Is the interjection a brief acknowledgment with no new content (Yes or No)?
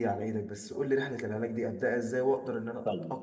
No